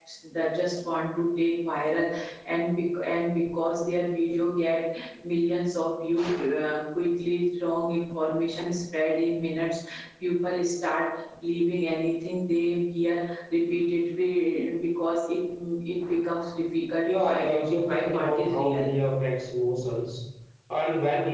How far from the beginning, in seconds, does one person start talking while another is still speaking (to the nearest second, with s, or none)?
17 s